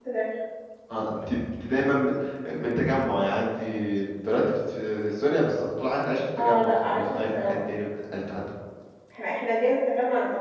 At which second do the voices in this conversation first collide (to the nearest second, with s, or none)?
6 s